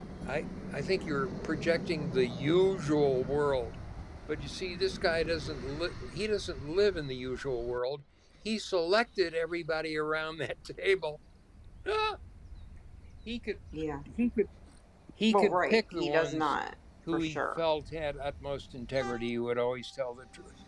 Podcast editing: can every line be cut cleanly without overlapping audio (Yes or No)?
No